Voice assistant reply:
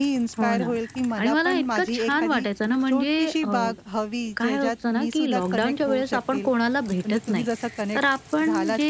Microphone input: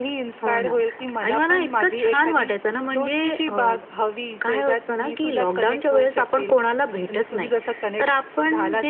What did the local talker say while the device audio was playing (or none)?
none